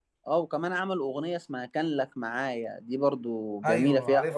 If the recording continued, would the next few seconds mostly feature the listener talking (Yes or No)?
Yes